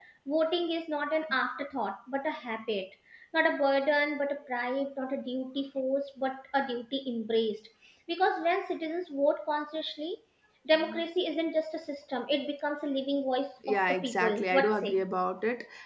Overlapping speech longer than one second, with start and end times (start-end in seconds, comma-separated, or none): 13.7-15.0